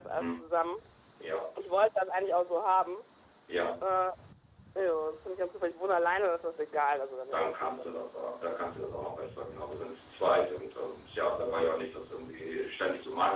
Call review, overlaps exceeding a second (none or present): none